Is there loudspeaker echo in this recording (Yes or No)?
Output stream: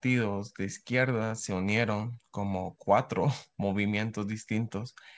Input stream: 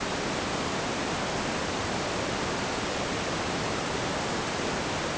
No